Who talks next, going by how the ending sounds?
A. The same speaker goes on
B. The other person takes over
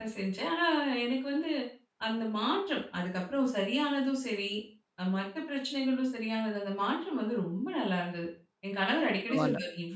A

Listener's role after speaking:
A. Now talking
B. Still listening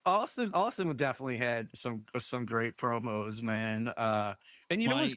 B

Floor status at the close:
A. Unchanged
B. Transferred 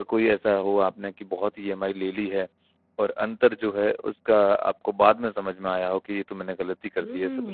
B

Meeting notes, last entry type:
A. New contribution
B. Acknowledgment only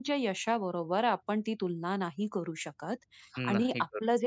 B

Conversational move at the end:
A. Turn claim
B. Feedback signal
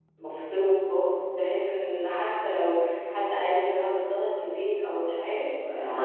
B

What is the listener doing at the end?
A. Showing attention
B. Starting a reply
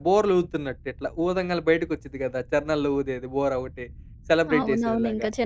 B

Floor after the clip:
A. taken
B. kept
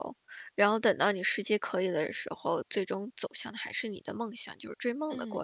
A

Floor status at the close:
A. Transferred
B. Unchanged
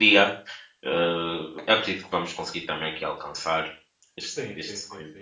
A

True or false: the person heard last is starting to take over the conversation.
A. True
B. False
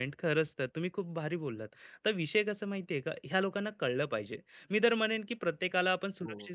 B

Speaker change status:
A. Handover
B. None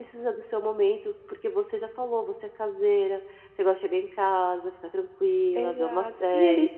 A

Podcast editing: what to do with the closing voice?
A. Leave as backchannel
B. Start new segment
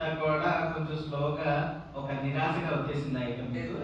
B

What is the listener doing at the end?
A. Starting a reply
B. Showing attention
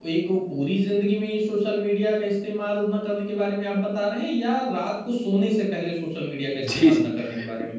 A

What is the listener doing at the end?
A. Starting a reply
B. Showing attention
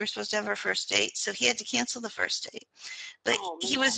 B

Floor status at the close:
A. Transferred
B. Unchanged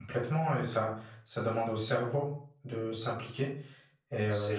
B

